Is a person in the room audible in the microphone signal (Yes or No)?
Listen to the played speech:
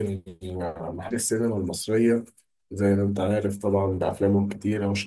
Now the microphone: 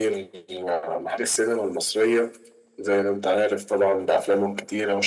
No